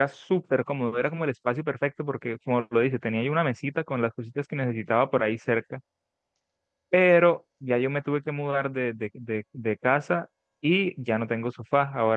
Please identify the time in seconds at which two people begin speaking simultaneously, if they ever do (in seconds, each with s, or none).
none